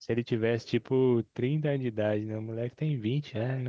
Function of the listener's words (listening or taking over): taking over